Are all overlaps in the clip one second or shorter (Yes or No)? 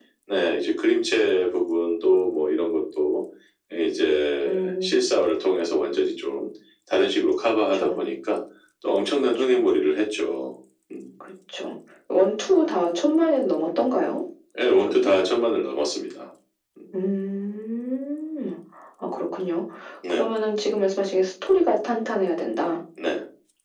Yes